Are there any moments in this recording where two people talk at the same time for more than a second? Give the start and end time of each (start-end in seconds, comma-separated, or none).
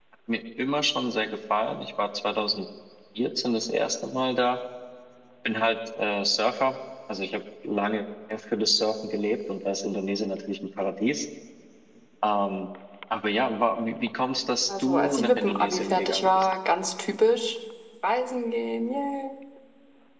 14.7-16.5